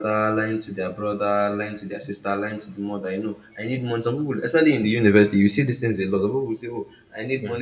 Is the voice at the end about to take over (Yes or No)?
No